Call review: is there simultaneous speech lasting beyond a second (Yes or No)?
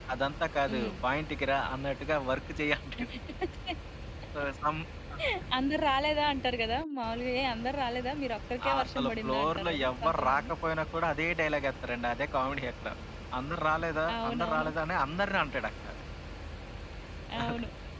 Yes